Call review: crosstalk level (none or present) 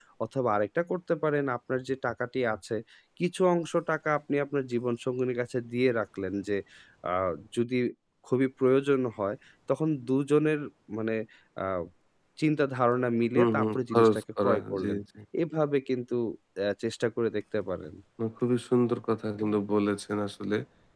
present